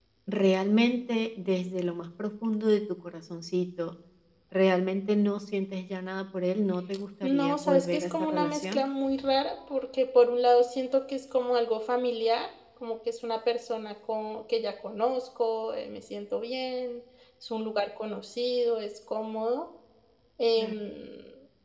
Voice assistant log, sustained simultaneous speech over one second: present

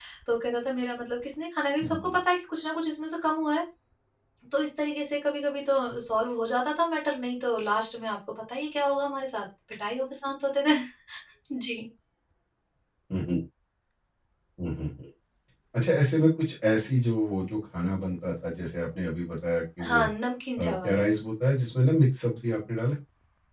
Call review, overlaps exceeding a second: none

